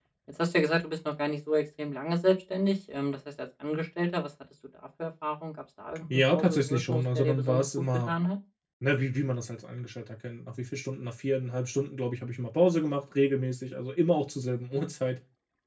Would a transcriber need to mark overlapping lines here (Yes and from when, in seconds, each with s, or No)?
Yes, from 6.1 s